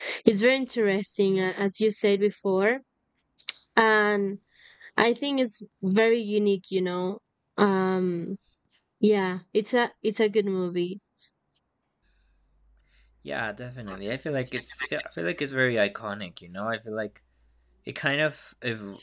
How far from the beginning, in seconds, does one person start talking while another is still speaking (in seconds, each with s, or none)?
none